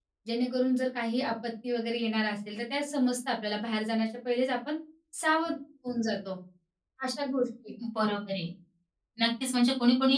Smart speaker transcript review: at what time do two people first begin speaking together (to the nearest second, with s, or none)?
none